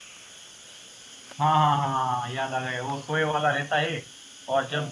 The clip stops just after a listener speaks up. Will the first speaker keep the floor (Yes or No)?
Yes